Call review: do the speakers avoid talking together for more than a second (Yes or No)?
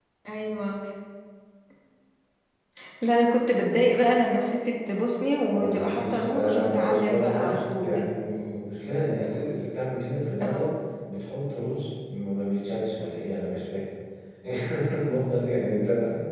No